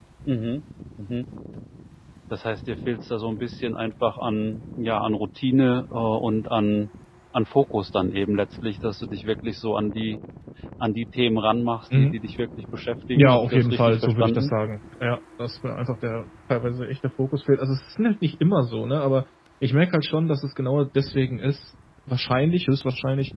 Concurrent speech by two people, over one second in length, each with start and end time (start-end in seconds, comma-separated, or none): 13.2-14.5